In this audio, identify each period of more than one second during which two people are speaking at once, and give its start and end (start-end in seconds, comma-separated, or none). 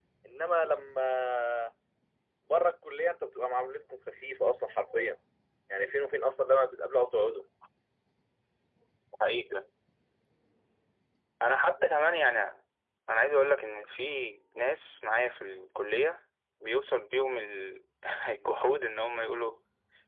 none